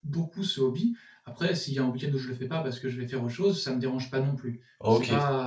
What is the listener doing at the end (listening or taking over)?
taking over